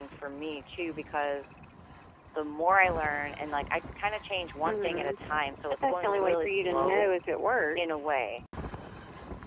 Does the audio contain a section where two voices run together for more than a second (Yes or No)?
Yes